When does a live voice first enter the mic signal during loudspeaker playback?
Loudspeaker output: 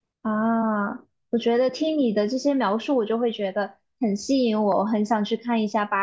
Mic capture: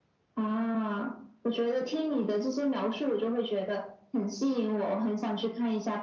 none

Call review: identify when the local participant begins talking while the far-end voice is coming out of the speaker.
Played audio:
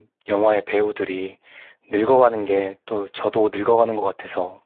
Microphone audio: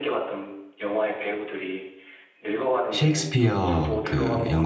3 s

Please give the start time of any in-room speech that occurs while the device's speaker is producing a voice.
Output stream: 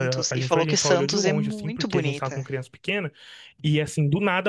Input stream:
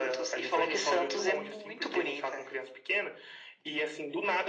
none

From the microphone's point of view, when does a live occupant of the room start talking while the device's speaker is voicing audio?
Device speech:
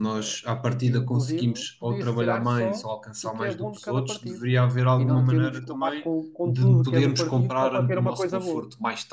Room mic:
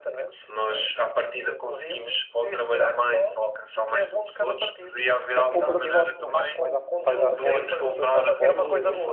5 s

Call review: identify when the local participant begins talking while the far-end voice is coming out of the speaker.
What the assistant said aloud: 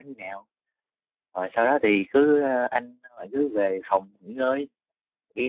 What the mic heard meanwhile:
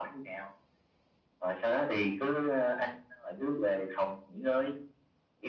none

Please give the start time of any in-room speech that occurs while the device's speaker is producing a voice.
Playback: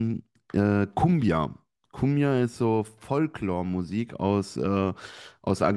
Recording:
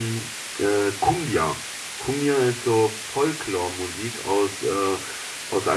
none

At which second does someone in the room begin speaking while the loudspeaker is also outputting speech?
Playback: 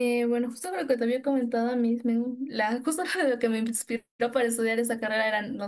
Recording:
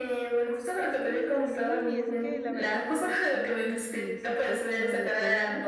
1 s

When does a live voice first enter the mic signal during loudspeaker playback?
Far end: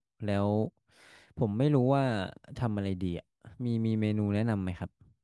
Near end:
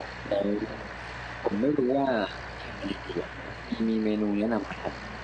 none

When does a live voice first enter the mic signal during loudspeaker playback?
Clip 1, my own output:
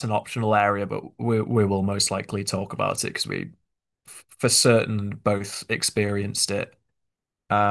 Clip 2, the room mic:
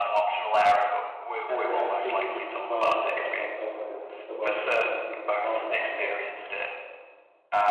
1 s

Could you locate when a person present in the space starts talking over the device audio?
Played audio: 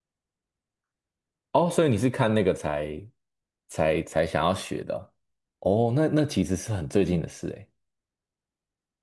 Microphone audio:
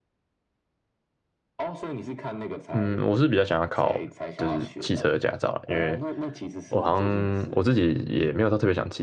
3 s

